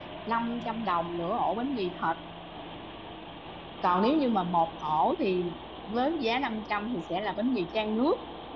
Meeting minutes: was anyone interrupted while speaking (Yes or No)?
No